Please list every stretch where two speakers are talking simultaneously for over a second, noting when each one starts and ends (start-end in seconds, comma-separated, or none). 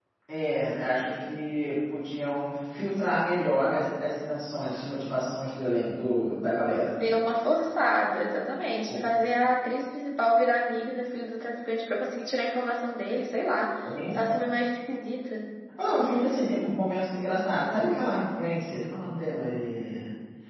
none